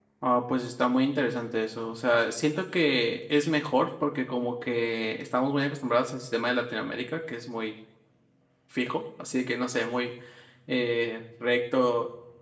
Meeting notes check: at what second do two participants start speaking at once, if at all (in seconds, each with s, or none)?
none